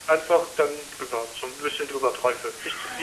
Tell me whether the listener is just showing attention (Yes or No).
No